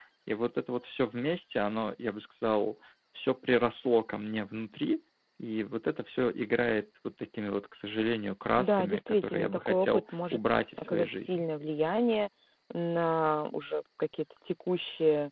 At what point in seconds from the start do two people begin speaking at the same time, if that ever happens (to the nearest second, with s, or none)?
9 s